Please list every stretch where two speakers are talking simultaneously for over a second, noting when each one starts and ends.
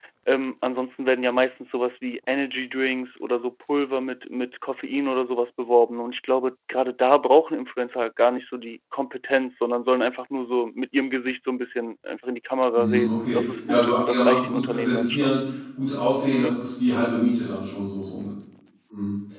12.8-15.3

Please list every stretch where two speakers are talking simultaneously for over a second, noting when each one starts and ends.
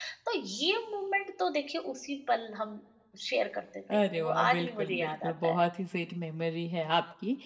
4.0-5.6

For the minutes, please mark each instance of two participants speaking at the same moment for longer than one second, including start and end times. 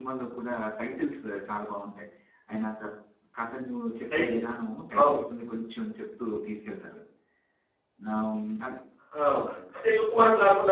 none

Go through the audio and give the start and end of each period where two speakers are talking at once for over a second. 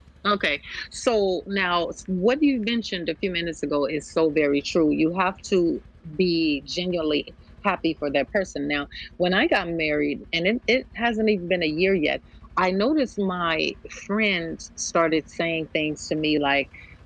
none

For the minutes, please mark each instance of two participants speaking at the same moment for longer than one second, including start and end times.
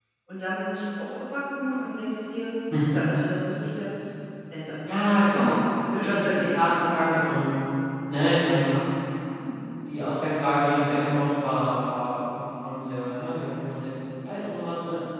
6.0-7.2

